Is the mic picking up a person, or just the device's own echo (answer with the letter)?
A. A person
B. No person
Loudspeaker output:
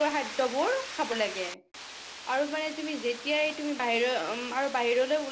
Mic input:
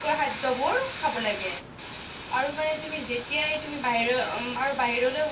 B